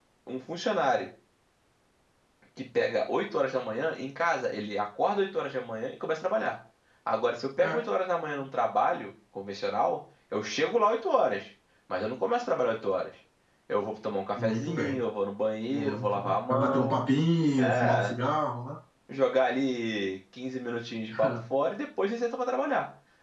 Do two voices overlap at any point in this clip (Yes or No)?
Yes